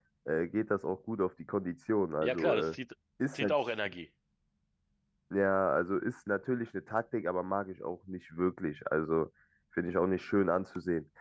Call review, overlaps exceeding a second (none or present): none